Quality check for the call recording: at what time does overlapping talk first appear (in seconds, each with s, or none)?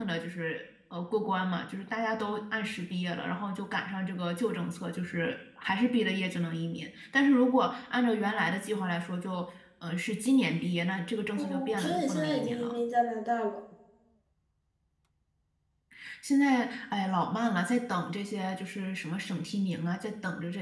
11.4 s